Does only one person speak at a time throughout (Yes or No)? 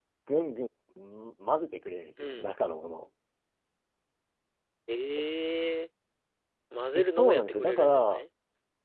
No